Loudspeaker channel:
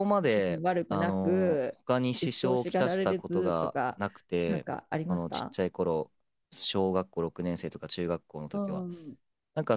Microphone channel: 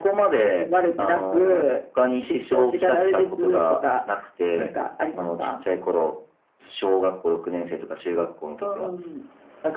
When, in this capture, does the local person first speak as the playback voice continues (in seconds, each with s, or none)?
none